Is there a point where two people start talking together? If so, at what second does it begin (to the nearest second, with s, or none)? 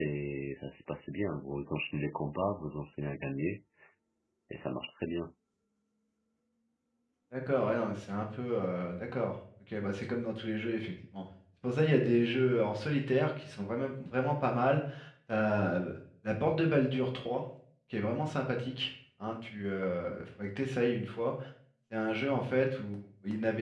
none